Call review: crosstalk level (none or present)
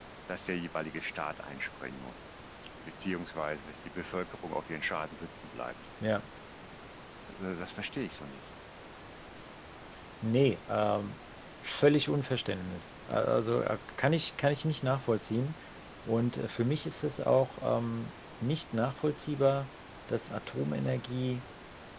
none